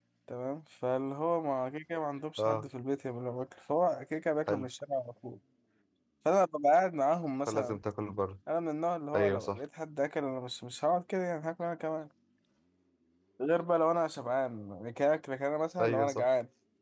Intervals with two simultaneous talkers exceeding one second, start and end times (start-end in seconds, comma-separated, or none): none